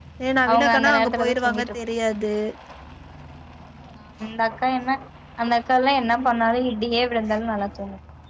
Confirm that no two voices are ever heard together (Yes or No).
No